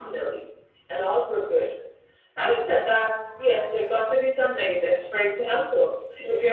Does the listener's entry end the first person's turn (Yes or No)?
No